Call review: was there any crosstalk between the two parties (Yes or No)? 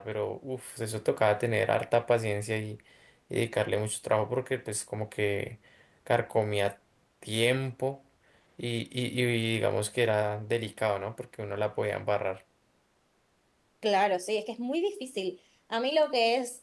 No